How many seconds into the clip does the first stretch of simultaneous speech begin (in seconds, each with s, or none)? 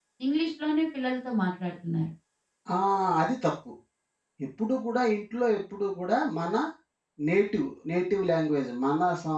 none